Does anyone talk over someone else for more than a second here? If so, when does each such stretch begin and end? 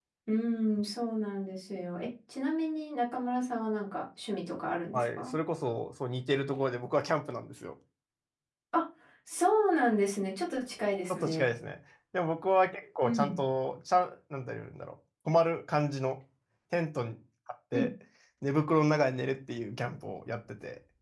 none

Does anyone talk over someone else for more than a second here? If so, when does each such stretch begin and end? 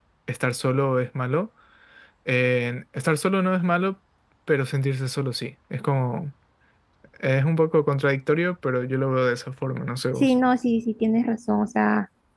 none

